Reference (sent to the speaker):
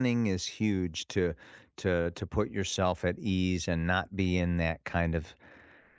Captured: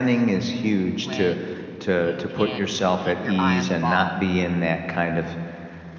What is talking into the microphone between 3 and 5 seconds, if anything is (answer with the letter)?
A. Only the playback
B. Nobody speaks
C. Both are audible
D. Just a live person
C